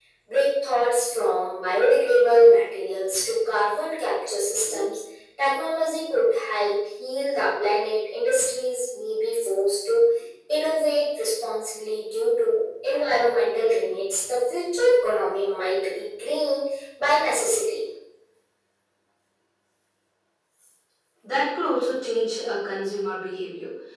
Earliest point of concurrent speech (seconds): none

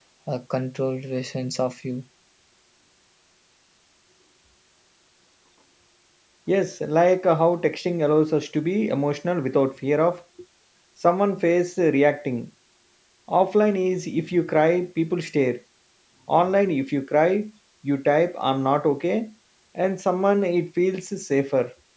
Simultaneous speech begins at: none

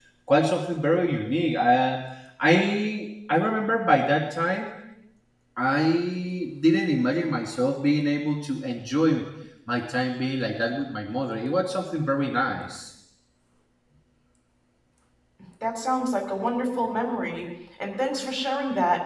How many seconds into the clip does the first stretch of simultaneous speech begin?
none

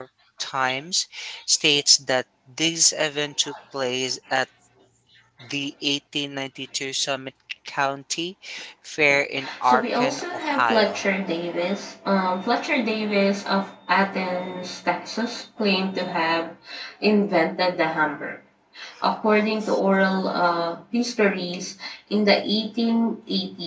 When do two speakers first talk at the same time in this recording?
9.7 s

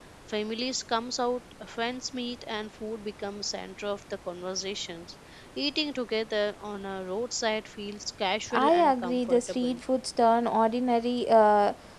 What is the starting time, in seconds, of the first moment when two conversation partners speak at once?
8.5 s

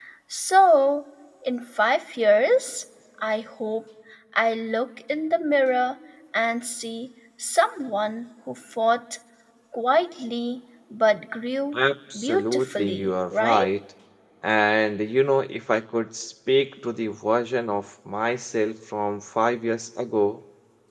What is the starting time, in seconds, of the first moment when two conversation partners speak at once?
12.2 s

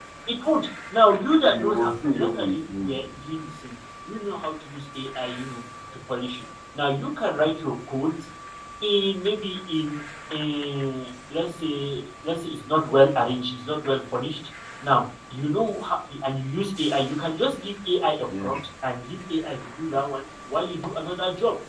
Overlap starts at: 1.4 s

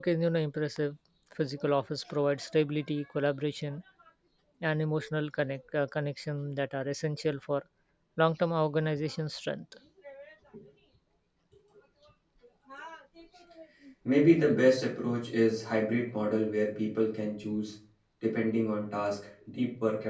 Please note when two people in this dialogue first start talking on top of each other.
none

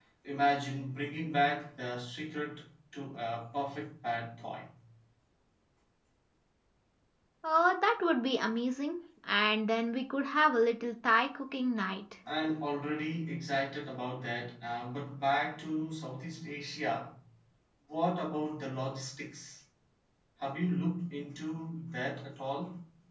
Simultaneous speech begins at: none

